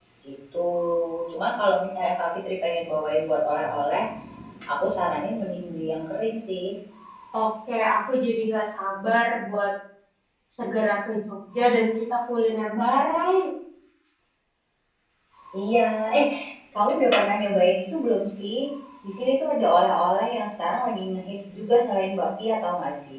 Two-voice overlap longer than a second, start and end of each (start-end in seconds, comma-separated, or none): none